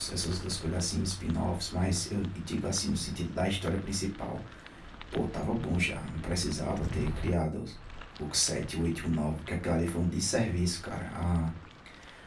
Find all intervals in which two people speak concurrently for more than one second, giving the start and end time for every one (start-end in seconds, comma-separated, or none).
none